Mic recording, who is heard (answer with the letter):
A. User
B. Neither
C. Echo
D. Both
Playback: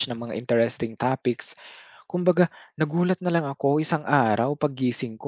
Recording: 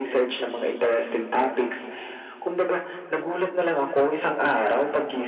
C